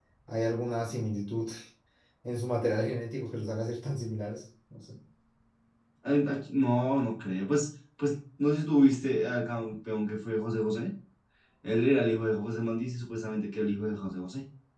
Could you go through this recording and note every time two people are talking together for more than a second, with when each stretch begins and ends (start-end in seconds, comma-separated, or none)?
none